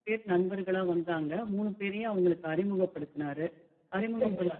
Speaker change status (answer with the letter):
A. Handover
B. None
B